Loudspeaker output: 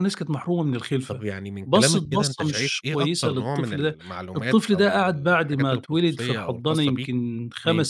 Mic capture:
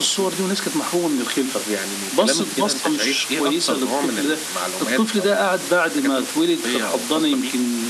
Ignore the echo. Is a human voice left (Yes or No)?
No